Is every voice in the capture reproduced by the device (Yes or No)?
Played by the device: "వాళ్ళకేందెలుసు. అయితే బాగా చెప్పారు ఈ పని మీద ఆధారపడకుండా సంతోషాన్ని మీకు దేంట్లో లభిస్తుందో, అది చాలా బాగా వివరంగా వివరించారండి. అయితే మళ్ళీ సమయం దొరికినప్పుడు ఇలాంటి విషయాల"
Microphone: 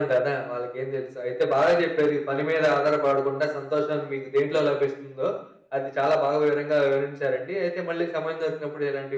Yes